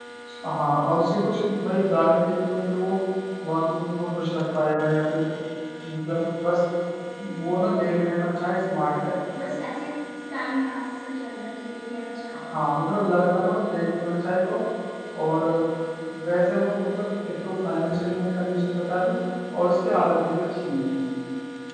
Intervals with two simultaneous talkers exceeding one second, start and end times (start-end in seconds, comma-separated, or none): none